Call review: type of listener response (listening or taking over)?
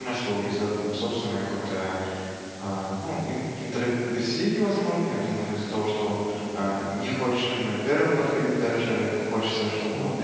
listening